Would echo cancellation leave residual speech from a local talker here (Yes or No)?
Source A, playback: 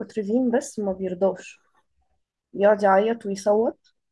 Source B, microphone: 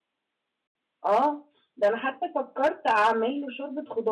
Yes